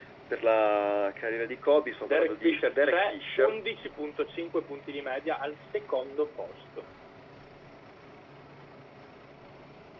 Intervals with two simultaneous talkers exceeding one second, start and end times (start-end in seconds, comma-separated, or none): 2.0-3.6